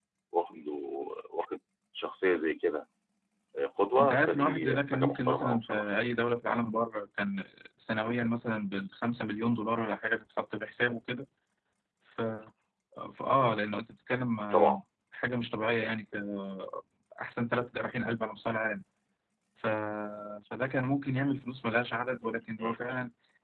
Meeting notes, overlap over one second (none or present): present